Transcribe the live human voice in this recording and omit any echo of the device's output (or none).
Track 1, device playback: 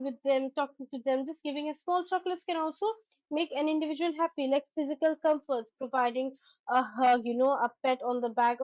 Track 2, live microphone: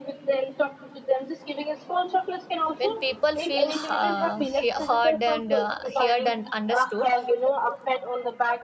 when people feel uh, he- heard and uh, heard and understood